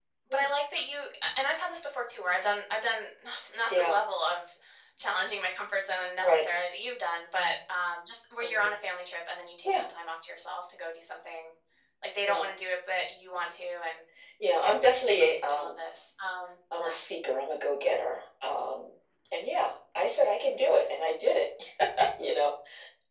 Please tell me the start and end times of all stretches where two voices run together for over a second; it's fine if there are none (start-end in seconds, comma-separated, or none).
none